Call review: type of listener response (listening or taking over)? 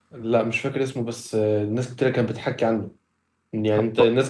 listening